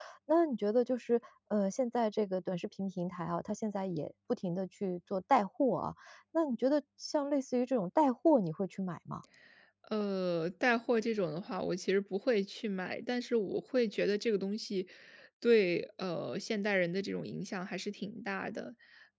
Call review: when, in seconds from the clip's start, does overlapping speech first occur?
none

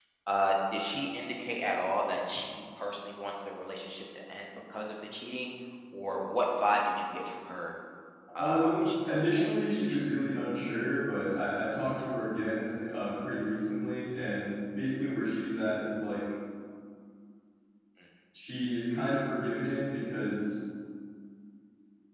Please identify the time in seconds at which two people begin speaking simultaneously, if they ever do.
8 s

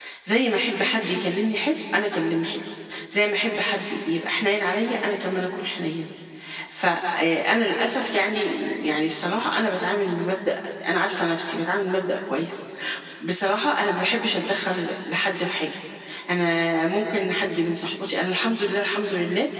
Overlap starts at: none

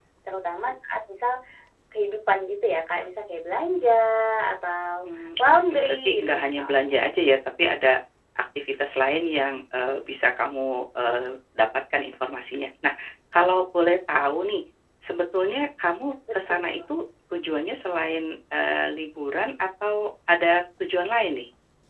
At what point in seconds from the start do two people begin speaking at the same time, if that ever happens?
5 s

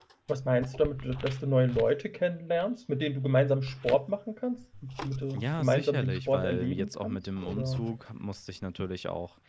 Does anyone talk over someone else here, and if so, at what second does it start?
5 s

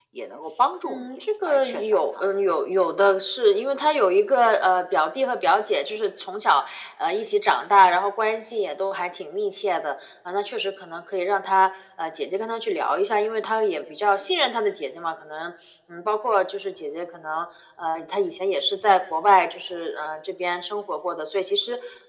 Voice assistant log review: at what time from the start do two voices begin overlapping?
1 s

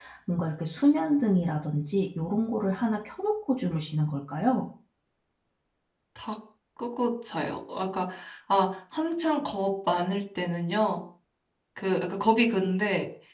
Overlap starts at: none

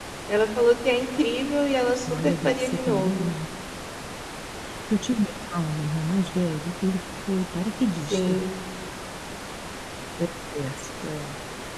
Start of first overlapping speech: 2 s

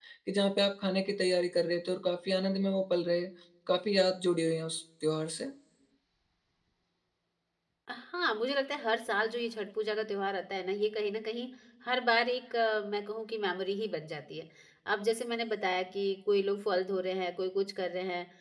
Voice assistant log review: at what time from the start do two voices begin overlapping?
none

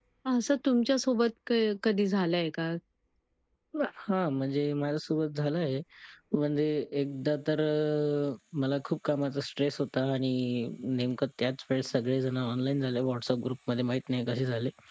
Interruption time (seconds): none

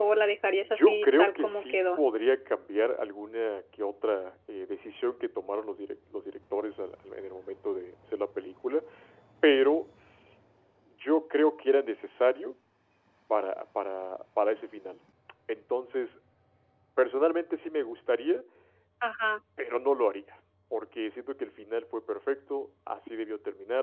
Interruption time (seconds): 1 s

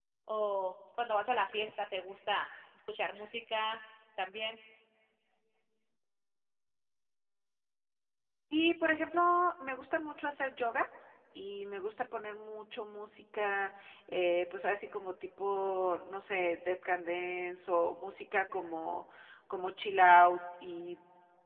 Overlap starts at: none

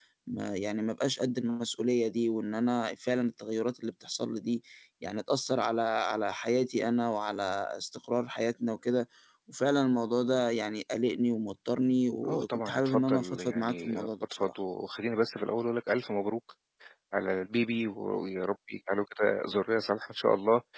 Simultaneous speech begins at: 12 s

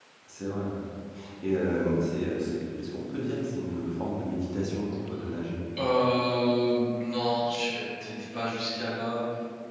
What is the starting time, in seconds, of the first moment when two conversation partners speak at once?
none

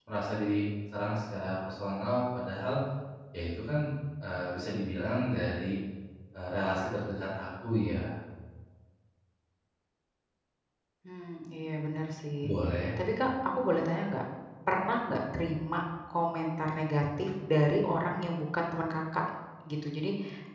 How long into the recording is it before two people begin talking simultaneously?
none

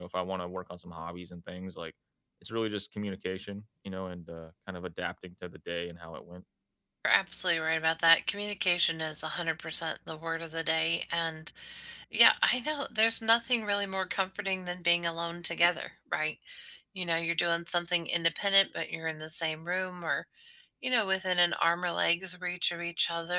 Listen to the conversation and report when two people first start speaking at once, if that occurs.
none

